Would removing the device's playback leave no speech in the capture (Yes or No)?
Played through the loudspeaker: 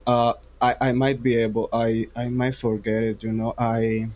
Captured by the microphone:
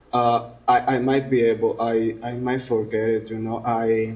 Yes